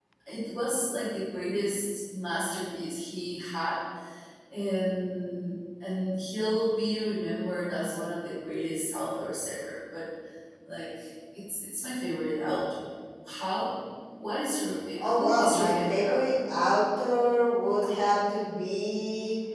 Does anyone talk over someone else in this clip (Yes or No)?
Yes